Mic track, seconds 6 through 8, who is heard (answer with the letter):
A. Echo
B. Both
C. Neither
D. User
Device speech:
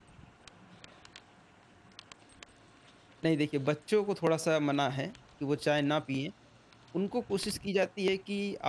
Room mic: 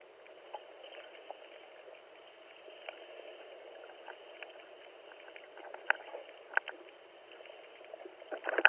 C